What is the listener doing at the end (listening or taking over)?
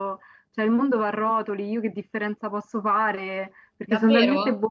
taking over